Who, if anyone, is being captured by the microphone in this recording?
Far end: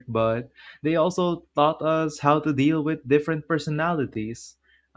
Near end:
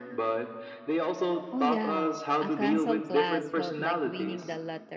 both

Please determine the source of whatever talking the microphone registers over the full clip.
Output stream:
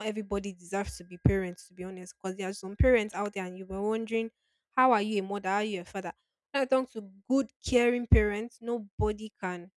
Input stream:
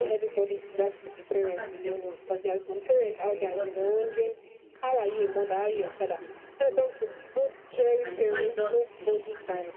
both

